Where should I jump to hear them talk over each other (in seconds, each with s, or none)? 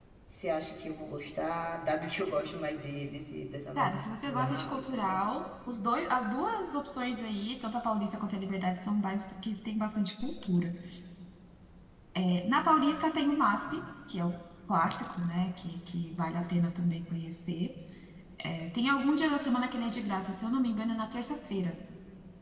3.8 s